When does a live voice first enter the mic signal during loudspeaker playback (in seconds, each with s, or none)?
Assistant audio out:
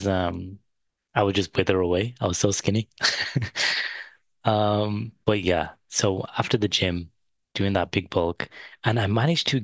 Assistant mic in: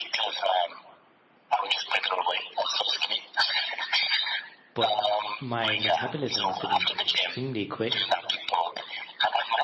4.7 s